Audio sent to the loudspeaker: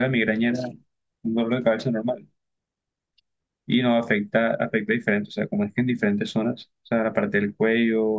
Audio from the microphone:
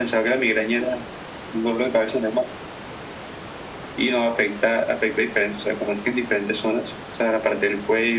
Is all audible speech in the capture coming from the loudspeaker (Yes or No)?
Yes